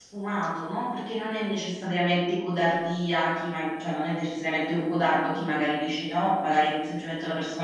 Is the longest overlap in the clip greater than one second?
No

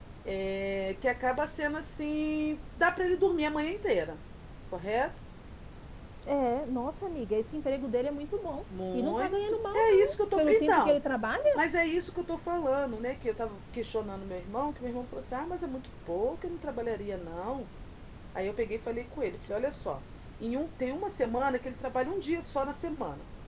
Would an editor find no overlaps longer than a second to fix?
No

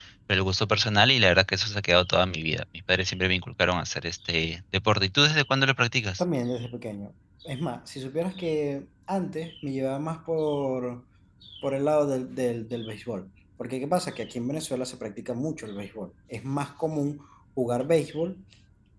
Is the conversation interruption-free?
Yes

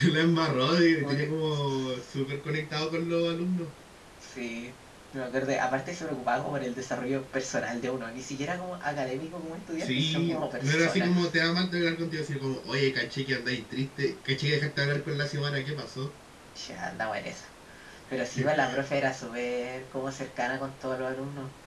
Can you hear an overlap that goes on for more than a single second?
Yes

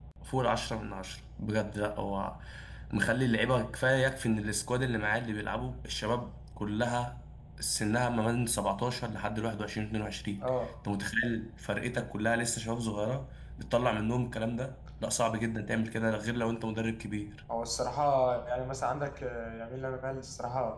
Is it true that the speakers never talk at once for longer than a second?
Yes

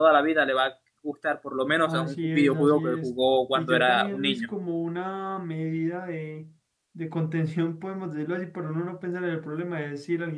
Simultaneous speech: Yes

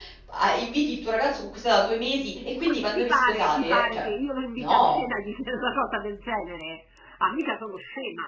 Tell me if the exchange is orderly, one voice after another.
No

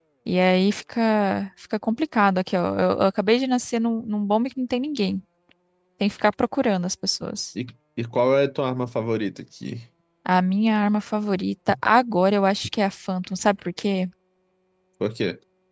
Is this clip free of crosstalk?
Yes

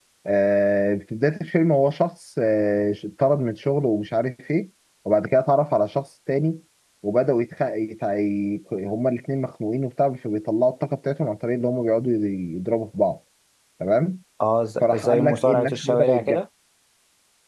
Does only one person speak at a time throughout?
No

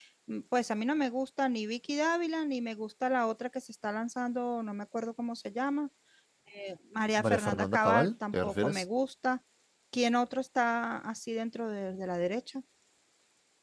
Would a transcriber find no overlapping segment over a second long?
No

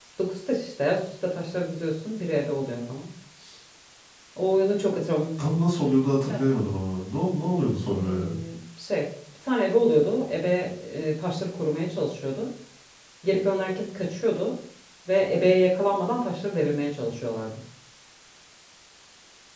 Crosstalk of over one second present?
No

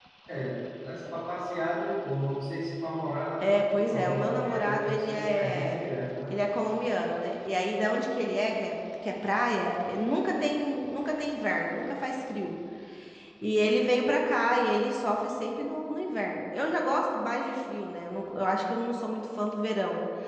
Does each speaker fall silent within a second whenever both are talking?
No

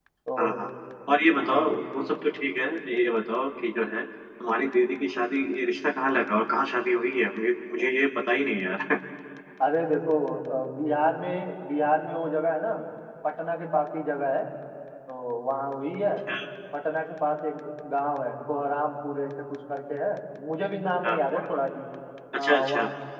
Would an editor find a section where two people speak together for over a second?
No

